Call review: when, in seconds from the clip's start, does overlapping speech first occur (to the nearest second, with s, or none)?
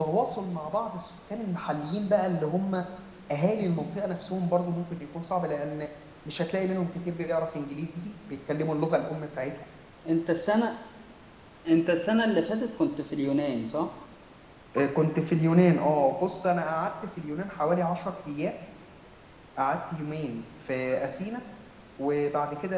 none